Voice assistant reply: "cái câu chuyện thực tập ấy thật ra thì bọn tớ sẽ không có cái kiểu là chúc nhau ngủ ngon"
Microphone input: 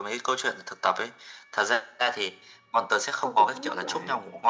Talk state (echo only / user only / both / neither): both